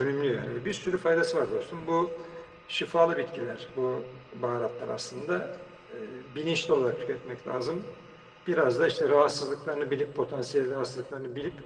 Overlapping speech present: No

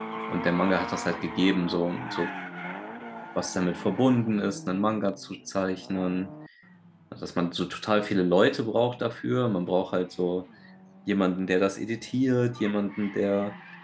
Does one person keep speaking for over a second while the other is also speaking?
No

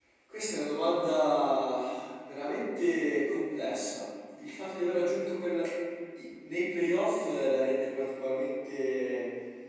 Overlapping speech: No

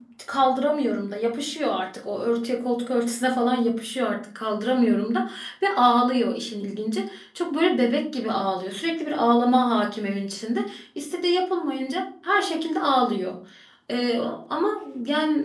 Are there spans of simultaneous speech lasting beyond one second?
No

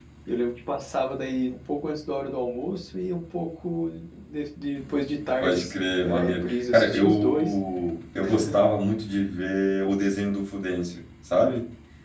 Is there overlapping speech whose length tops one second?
Yes, from 5.4 s

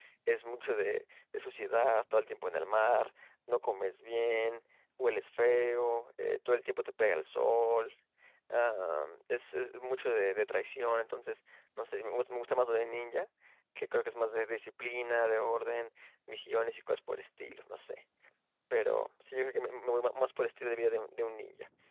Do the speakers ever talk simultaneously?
No

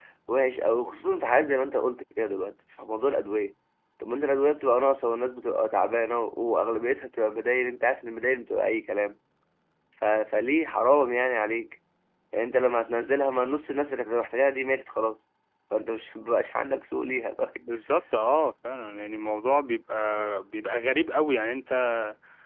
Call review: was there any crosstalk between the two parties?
No

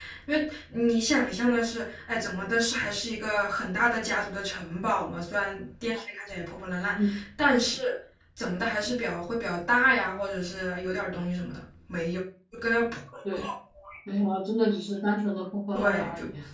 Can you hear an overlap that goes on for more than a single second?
No

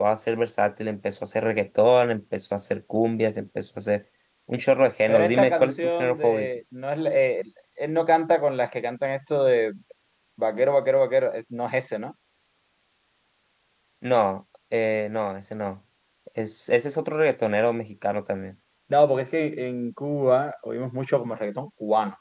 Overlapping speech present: Yes, from 5.1 s

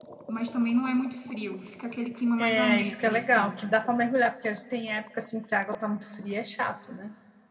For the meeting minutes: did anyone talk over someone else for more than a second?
Yes, from 2.4 s

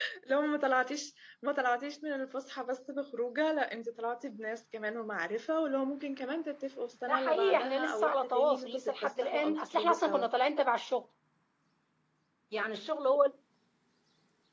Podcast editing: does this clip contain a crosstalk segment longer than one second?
Yes, from 7.1 s

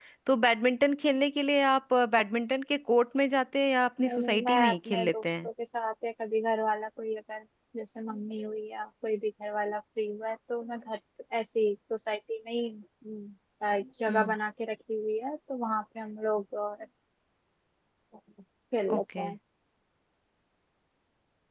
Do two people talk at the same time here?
Yes, from 4.0 s

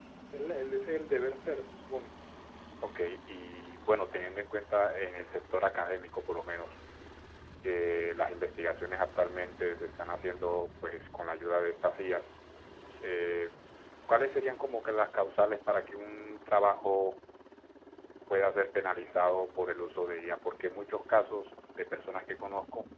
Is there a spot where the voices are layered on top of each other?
No

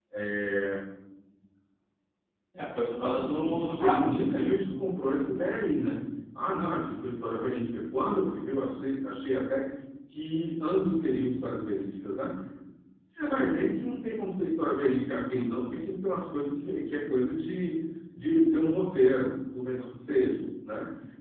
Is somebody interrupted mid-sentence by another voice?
Yes, from 3.0 s

